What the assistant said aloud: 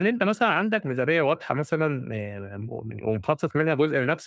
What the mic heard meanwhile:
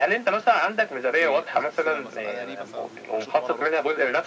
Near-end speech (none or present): present